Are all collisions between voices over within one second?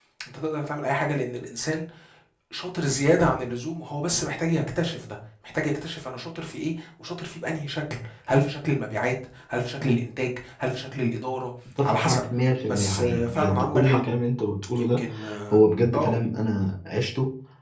No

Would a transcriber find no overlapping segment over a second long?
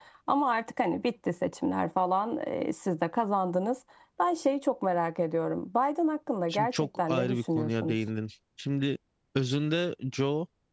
No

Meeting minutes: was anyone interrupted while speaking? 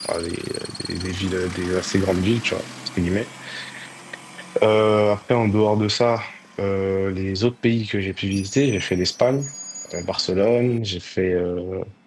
No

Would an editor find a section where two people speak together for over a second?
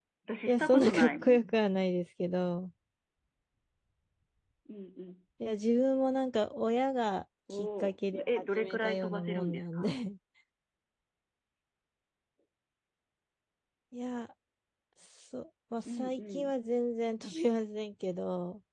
Yes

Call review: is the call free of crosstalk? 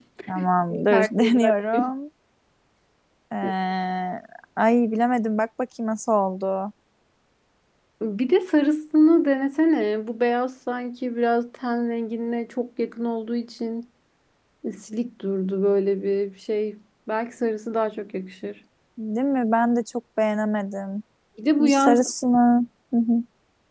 No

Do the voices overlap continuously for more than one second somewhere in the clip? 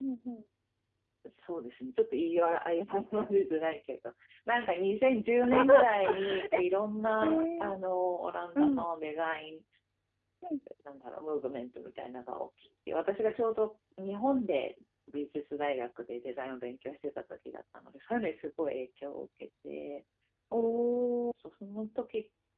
No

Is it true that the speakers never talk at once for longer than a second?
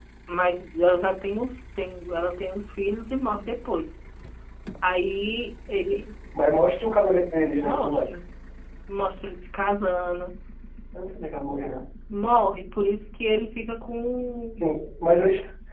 Yes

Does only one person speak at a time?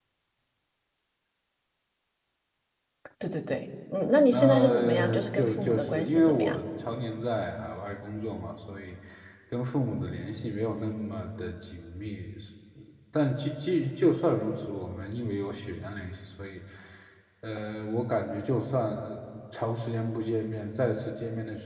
No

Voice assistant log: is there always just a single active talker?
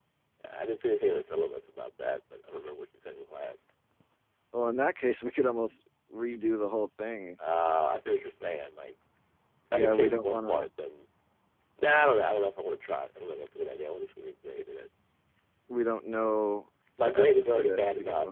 No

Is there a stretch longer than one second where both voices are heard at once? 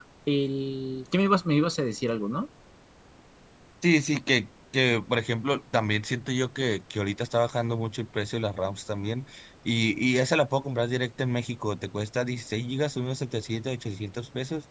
No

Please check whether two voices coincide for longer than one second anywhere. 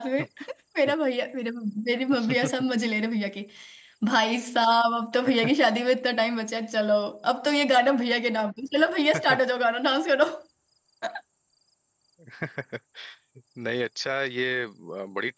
No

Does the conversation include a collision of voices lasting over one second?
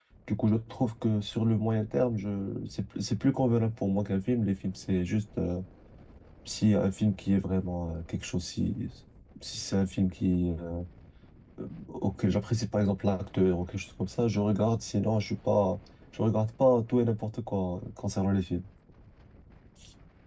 No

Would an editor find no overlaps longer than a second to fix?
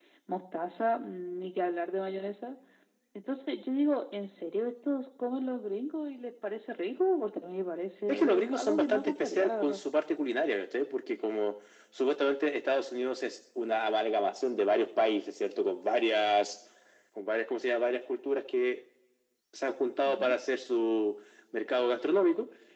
No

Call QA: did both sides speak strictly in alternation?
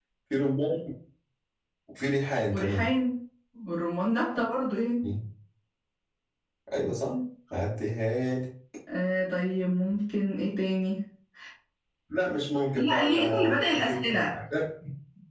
No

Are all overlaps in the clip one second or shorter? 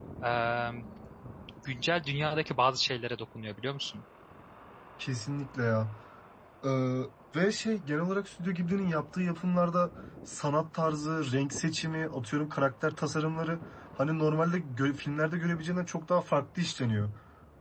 Yes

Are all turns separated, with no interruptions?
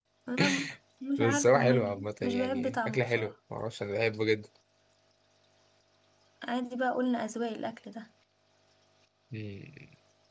No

